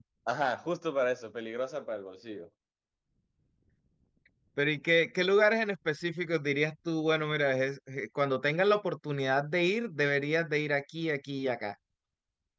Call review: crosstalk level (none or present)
none